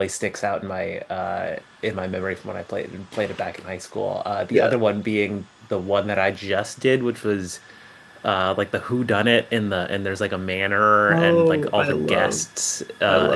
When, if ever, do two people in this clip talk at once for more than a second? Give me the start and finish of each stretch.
11.1-12.4

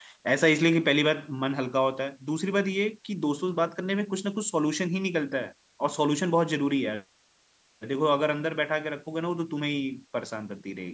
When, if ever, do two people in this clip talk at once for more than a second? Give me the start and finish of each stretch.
none

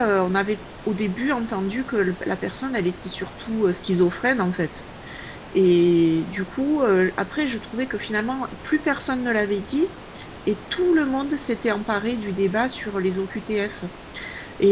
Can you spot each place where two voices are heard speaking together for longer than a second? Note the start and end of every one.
none

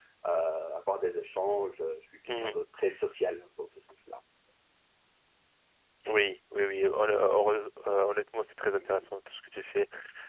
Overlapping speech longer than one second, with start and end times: none

